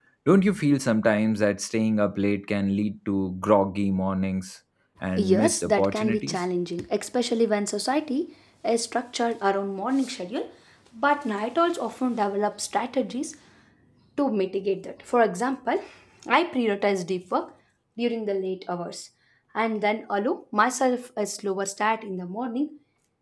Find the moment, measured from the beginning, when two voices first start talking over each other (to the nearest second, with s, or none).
5 s